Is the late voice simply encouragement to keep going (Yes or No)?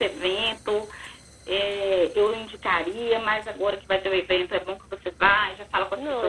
Yes